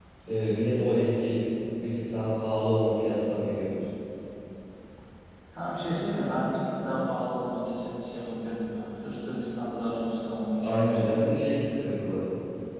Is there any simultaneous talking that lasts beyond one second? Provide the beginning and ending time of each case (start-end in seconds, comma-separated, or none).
none